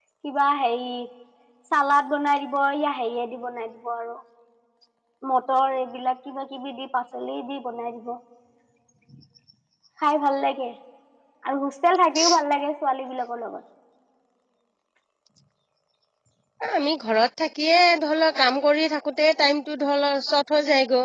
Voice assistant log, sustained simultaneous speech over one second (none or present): none